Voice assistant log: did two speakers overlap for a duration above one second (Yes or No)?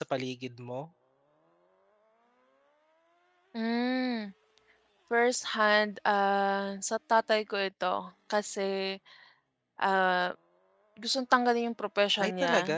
No